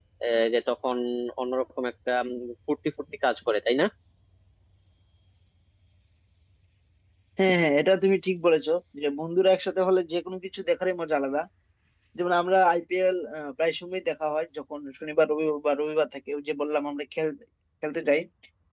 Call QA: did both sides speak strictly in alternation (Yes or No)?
Yes